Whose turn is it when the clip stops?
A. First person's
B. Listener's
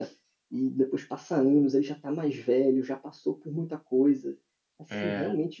A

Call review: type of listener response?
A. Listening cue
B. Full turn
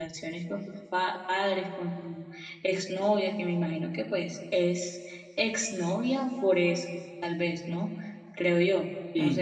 B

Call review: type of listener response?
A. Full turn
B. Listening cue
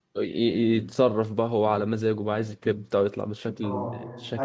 A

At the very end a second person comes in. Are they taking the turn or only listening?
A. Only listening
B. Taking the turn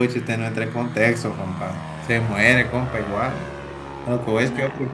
A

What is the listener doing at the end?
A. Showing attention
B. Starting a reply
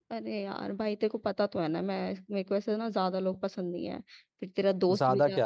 A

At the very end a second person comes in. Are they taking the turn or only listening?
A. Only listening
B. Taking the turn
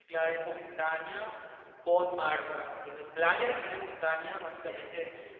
A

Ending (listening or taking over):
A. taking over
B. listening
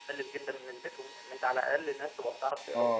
A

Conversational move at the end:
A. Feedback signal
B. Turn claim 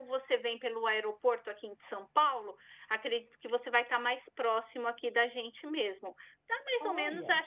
A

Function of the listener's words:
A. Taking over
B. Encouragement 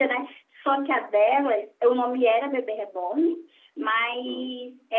B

